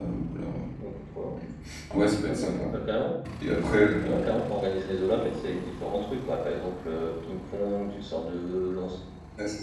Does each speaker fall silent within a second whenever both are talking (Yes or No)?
Yes